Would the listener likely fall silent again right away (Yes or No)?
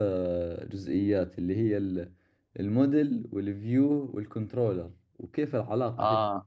Yes